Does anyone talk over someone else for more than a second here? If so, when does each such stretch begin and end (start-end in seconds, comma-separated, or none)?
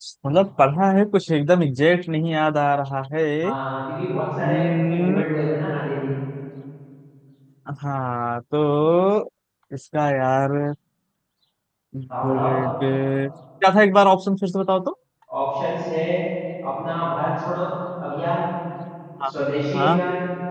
none